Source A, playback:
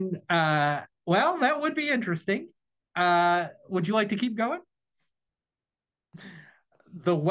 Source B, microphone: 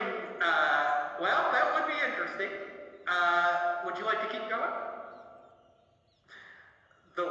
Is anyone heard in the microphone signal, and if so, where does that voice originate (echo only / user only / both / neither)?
echo only